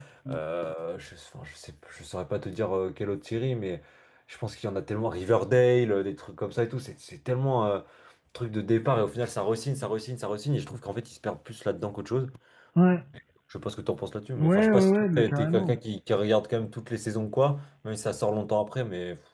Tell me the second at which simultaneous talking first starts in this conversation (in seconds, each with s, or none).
14.4 s